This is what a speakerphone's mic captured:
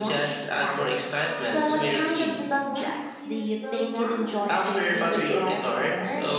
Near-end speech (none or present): present